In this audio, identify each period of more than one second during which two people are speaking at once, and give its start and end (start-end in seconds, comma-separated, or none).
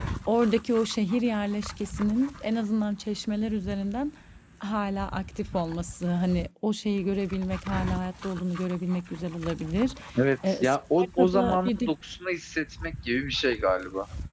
10.5-11.9